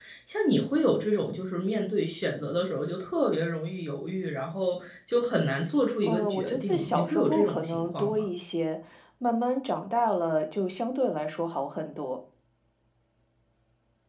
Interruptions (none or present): present